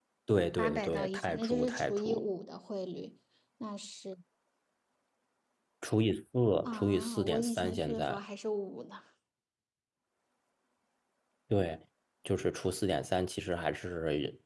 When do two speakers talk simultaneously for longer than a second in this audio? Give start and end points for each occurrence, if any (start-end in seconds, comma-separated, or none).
0.6-2.2, 6.7-8.2